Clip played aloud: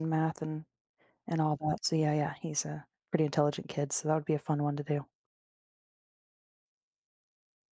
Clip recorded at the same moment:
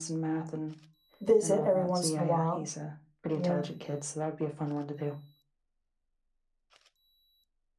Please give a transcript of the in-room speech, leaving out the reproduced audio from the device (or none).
visit every once in a while. Yeah.